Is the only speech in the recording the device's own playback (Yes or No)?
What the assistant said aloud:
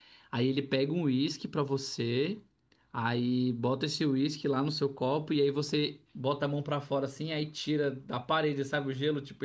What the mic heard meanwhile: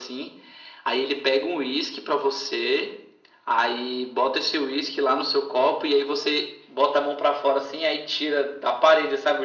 Yes